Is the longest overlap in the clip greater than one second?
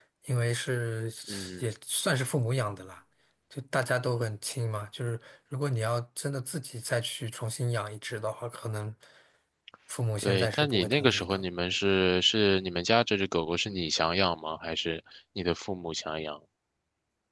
Yes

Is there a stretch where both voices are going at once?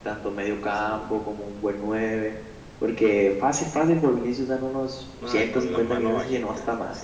Yes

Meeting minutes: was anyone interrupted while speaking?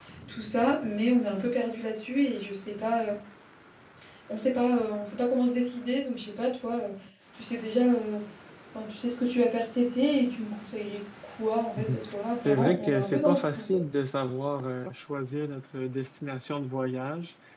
Yes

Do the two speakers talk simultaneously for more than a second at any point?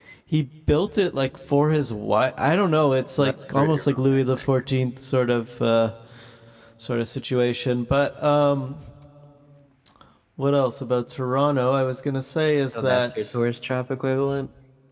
Yes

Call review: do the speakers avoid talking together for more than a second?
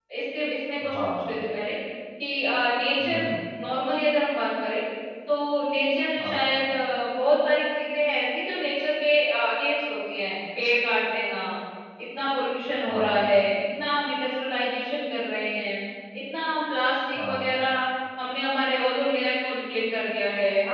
Yes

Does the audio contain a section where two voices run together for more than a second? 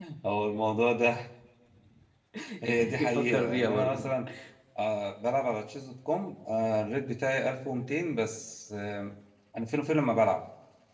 Yes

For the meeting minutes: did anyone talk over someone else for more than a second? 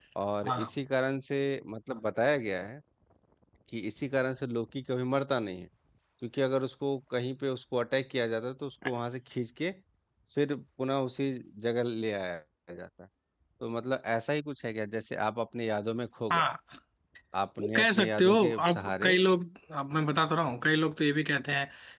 Yes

